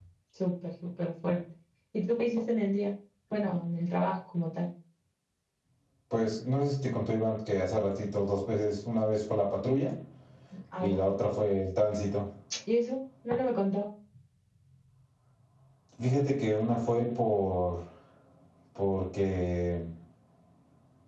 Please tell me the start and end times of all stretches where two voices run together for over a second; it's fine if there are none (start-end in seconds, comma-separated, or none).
none